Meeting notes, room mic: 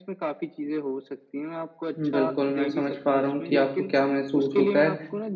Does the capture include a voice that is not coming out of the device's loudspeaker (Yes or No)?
Yes